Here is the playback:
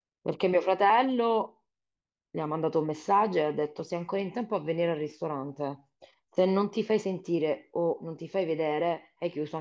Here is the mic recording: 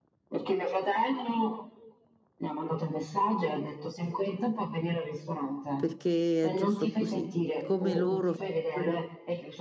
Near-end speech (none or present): present